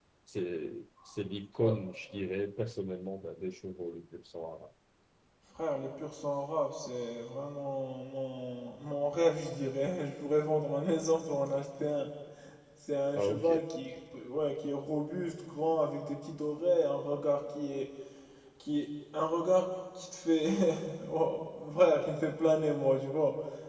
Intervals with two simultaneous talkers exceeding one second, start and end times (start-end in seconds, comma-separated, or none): none